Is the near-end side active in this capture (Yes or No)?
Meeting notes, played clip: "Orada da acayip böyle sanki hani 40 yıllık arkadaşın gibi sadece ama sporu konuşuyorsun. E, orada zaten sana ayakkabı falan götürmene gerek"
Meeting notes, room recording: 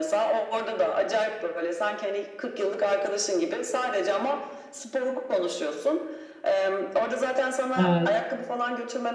Yes